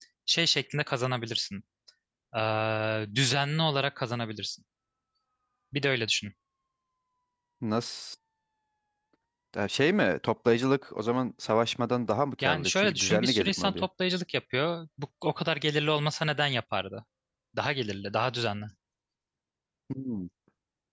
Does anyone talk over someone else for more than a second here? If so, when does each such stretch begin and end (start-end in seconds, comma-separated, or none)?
12.4-13.9